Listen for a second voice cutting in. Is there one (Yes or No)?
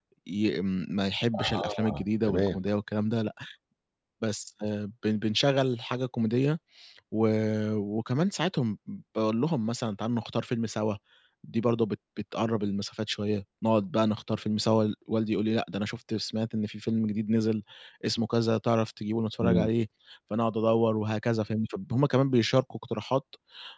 Yes